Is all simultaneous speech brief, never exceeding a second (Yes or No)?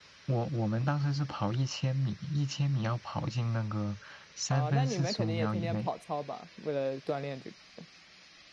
No